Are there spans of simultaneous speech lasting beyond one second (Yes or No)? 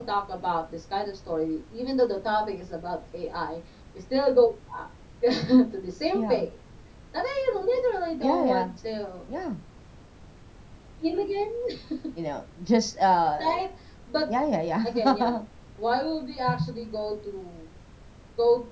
No